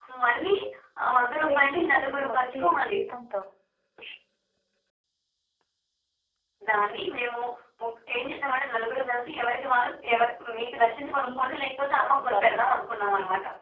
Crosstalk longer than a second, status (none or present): present